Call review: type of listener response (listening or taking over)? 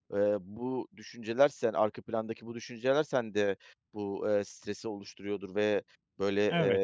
listening